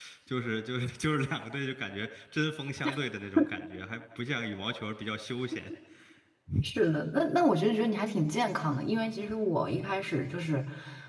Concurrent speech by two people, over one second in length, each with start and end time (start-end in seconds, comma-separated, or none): none